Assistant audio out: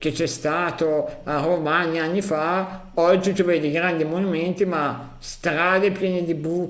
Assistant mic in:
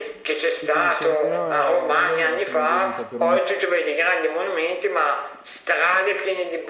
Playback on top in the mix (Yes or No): Yes